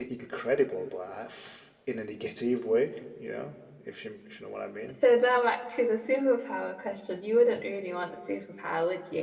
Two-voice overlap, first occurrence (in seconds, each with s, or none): none